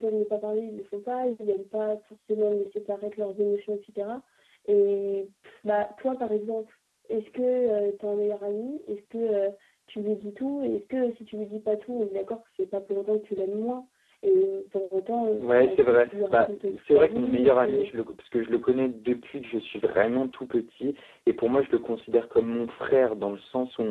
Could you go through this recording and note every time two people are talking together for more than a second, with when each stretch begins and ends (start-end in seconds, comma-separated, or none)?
15.4-17.9